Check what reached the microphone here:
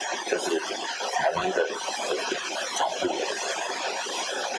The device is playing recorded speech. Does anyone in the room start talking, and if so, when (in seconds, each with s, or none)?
none